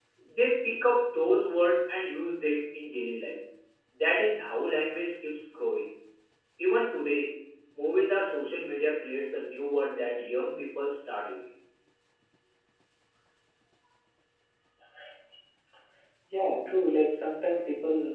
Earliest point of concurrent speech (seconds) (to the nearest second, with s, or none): none